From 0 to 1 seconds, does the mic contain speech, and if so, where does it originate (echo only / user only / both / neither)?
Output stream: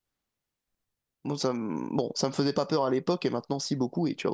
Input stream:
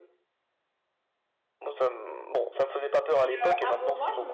neither